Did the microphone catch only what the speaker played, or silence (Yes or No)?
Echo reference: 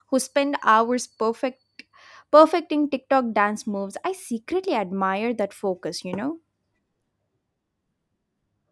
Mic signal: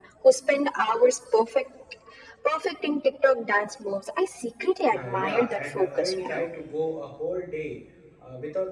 No